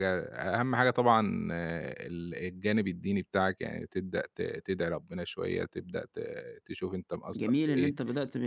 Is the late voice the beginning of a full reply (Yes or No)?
Yes